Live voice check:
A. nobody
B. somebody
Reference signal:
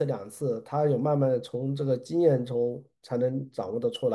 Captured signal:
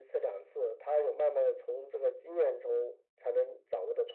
A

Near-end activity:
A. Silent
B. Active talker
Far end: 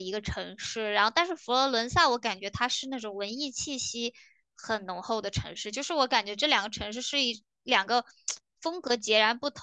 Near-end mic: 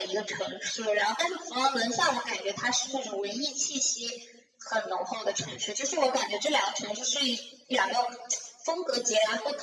A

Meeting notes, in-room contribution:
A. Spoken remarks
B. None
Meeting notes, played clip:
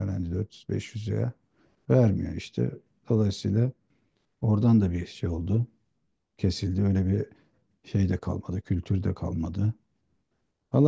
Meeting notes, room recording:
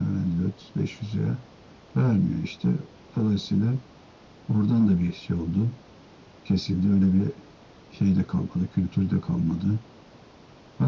B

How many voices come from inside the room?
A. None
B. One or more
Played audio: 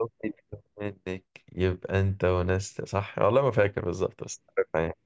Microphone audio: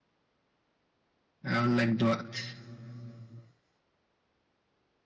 B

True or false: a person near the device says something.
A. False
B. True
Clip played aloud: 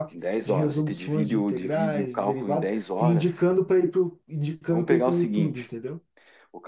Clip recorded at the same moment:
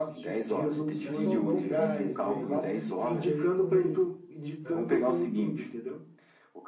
B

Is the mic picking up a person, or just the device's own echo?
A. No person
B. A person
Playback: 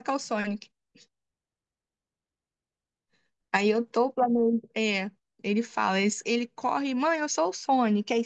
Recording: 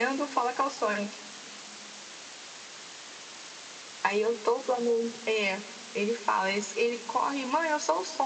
A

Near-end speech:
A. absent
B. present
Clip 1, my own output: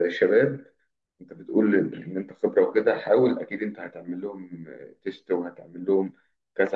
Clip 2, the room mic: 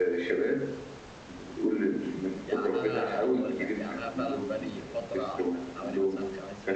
B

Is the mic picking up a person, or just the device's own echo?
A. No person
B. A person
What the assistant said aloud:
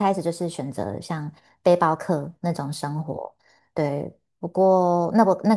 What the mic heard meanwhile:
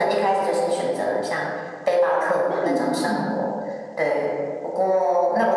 B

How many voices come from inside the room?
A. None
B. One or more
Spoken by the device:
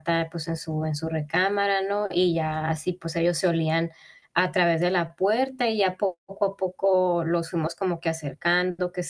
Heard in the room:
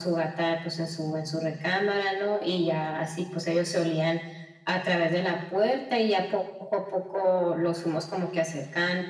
A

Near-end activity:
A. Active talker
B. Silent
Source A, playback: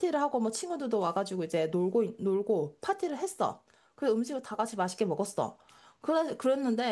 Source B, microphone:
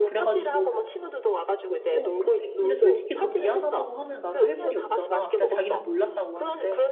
A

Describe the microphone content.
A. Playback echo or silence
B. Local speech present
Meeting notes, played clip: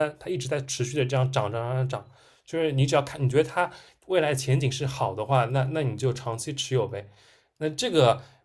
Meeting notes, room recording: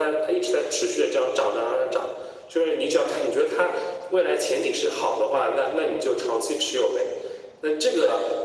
A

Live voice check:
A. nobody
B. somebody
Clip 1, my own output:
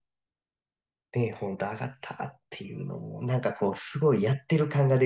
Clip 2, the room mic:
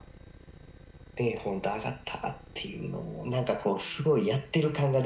A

